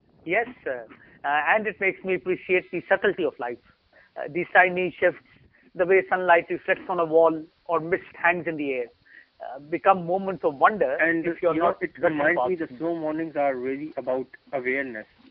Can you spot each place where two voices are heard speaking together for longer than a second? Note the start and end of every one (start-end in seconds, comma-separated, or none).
11.0-12.8